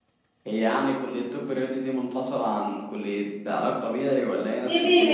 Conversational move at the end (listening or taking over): taking over